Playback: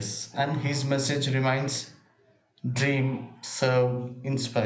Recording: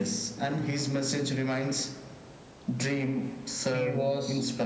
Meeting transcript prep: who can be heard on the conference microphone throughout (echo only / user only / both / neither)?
both